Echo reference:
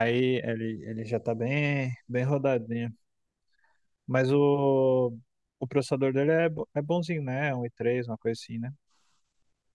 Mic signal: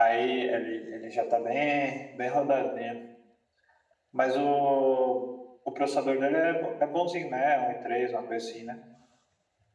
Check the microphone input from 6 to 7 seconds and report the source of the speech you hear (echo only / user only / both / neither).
echo only